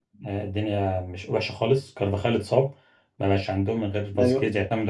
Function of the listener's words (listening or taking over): listening